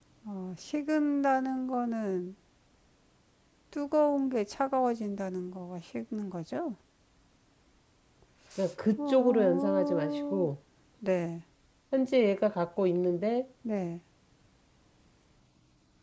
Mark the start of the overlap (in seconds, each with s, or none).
9.0 s